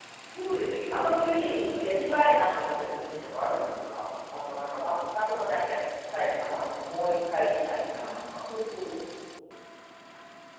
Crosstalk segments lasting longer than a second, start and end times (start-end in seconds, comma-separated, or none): 0.9-3.5